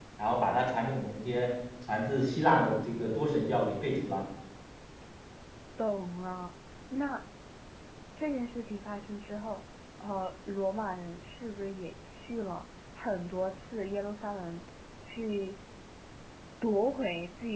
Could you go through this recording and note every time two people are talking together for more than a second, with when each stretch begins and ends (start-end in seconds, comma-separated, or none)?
none